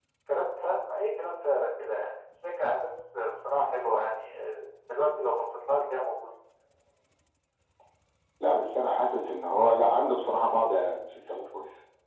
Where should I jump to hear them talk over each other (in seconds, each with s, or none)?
none